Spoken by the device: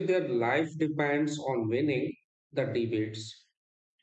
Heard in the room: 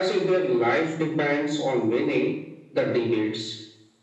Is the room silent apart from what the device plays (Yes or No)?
Yes